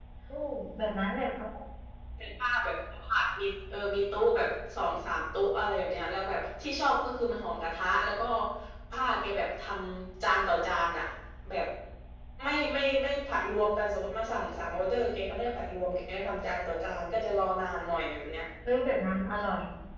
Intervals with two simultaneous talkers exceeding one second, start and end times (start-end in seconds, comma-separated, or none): none